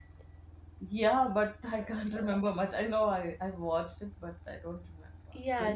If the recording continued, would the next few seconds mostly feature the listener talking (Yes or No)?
Yes